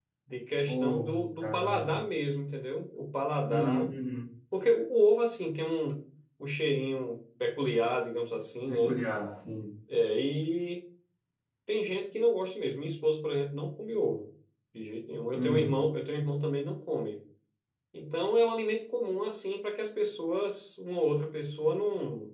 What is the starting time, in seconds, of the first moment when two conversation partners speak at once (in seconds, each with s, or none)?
0.7 s